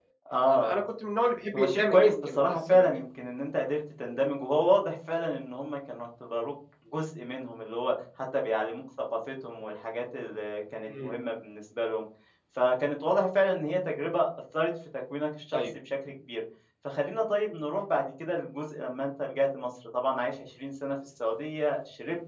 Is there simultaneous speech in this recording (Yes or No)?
Yes